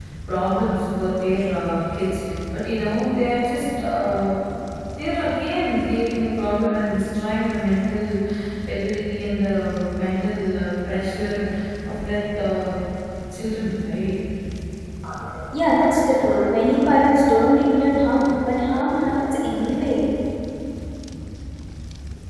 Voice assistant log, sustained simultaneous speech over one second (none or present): none